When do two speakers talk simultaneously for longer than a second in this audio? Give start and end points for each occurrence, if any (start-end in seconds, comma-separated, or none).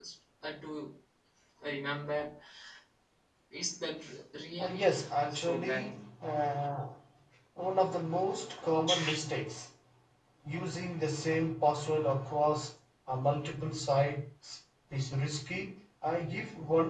4.6-5.9